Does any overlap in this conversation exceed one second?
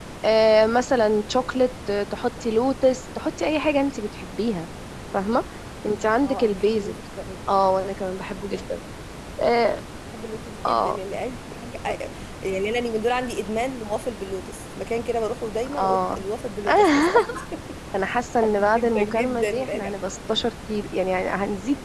Yes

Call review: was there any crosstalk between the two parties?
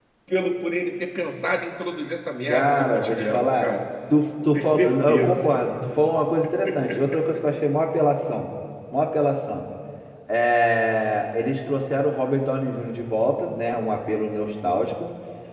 Yes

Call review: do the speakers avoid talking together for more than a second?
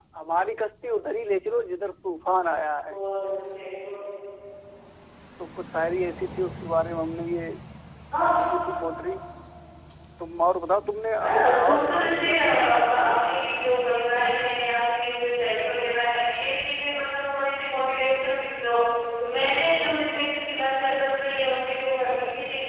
No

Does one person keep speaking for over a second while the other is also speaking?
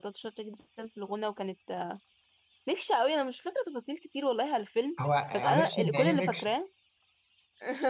Yes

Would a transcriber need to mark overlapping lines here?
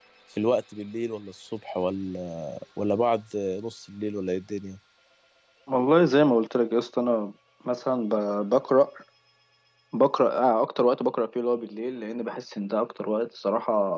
No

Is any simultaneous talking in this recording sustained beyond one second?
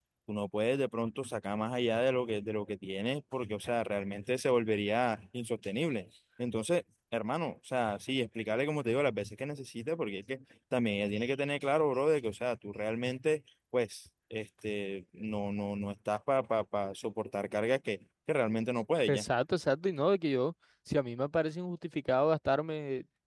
No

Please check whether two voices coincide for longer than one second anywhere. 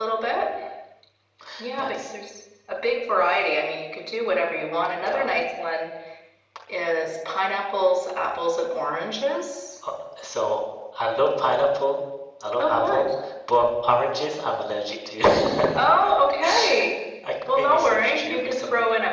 Yes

